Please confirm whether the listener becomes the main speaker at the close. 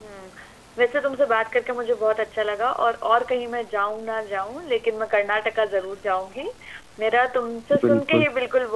No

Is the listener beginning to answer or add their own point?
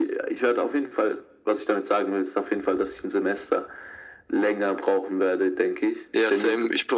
Yes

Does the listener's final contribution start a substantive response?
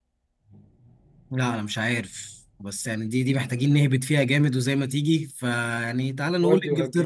No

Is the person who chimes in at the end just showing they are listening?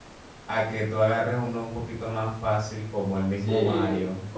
No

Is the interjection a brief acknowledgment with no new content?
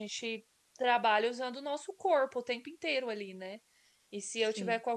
Yes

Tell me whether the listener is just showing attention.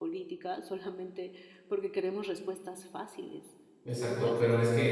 No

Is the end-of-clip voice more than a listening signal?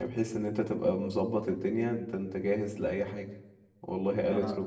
No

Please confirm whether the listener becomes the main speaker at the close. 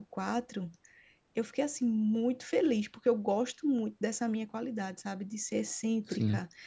No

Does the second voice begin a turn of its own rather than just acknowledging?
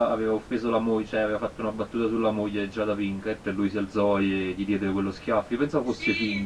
Yes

